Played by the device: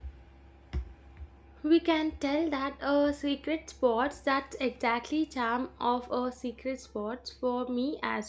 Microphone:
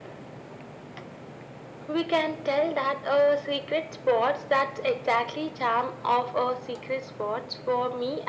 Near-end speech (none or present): none